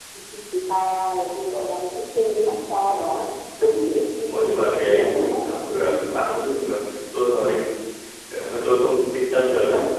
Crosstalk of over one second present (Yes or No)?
Yes